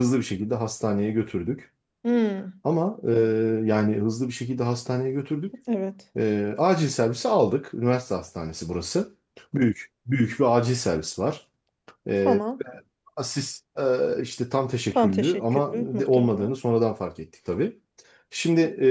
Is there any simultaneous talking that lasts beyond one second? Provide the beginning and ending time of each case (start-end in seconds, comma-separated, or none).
14.9-16.5